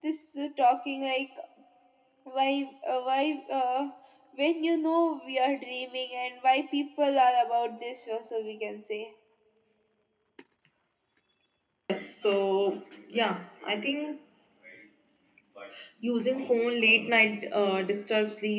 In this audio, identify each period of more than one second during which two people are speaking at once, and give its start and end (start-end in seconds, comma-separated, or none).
none